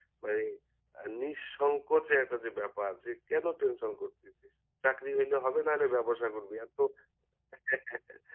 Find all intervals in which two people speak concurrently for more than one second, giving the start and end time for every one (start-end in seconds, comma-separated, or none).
none